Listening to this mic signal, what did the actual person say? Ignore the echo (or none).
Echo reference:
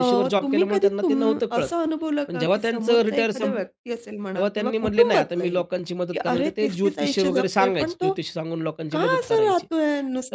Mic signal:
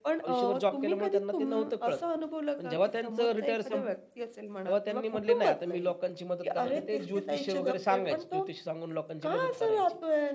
none